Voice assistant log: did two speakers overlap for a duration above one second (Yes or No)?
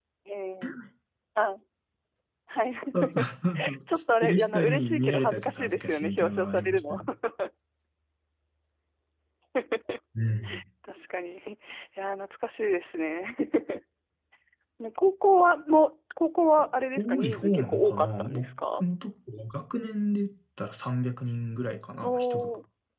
Yes